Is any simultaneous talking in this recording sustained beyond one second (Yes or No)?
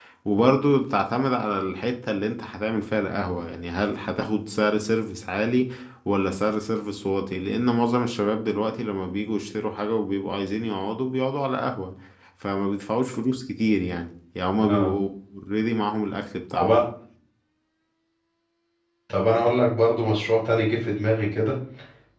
No